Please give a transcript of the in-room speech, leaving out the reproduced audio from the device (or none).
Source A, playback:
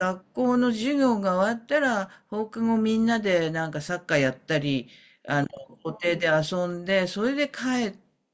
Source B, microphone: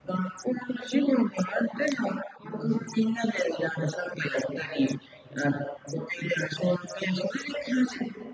なんでしょう。